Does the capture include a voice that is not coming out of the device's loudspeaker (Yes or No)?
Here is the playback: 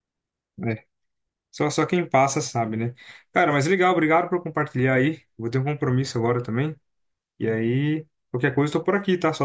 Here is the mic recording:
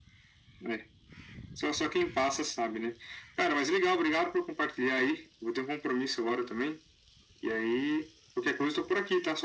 No